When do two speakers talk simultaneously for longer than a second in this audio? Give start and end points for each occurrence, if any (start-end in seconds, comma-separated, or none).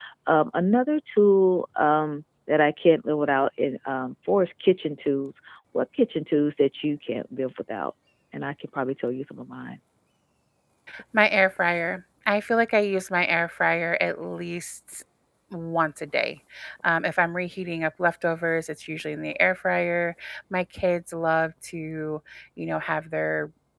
none